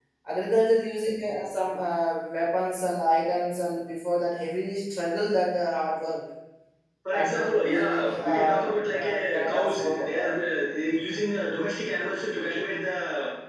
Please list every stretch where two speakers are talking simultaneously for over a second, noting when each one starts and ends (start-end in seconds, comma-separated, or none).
7.1-10.3